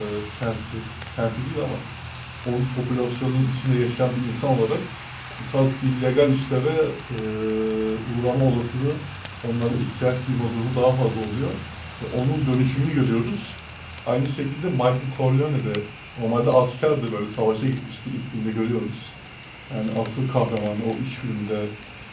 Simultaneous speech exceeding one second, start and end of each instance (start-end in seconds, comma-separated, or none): none